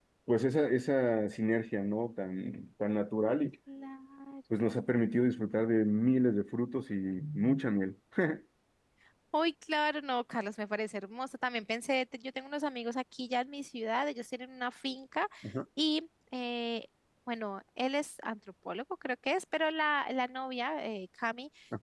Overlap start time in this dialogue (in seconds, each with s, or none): none